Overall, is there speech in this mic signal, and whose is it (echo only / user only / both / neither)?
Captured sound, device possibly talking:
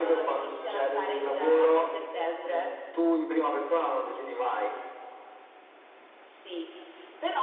echo only